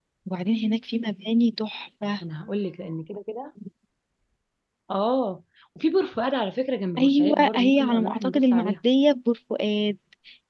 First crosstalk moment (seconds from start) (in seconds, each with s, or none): 7.0 s